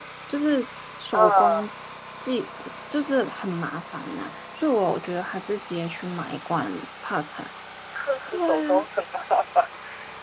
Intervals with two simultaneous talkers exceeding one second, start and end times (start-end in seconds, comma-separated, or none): none